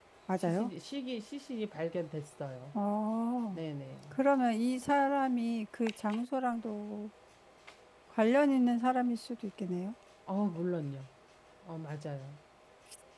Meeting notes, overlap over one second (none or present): none